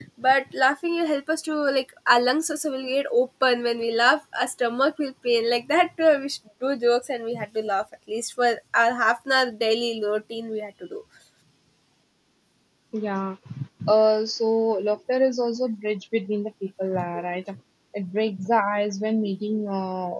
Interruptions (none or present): none